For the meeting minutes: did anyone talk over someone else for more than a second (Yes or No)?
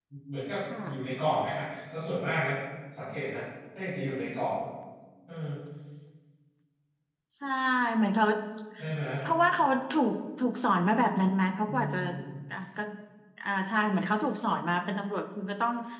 No